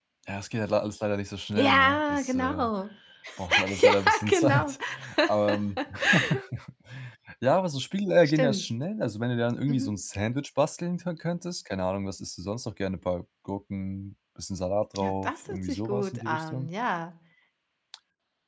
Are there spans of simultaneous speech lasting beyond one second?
Yes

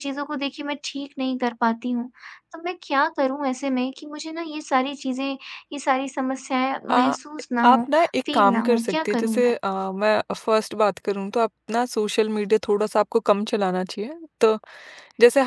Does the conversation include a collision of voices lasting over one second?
Yes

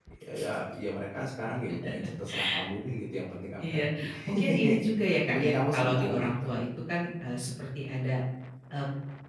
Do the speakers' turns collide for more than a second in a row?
Yes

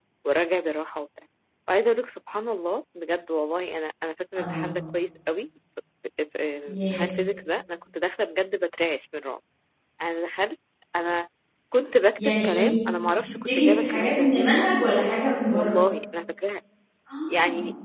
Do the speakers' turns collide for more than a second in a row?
Yes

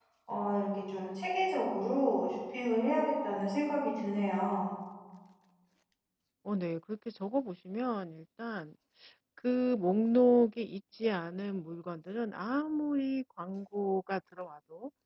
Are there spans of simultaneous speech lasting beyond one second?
No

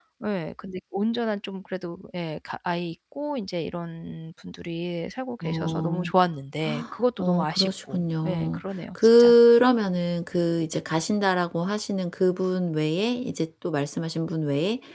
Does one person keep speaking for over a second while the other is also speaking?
Yes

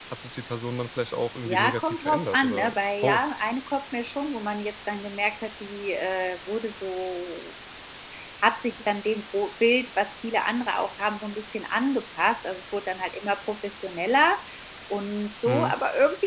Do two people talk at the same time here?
Yes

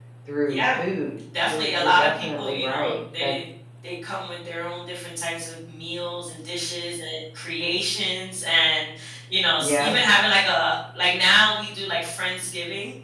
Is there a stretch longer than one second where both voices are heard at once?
Yes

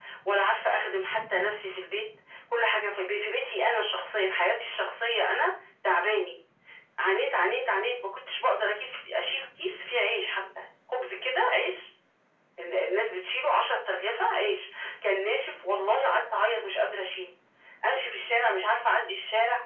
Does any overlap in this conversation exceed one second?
No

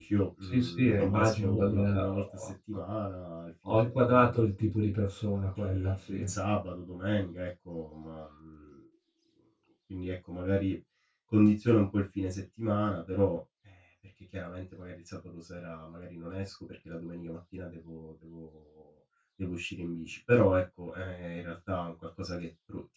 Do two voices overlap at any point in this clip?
Yes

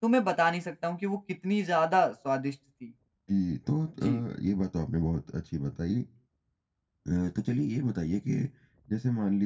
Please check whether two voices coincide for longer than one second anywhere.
No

